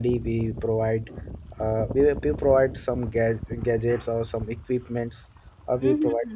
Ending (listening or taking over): listening